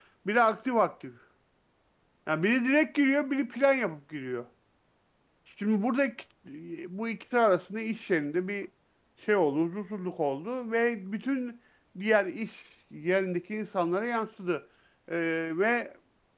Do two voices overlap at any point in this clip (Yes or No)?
No